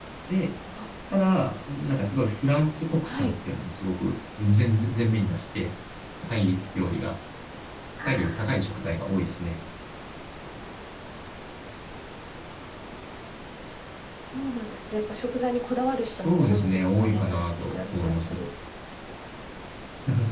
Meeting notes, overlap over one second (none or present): present